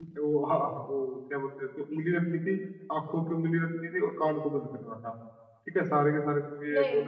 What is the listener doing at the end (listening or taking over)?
listening